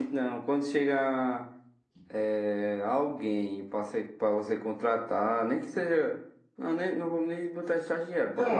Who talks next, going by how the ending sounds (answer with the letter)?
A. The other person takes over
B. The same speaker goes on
A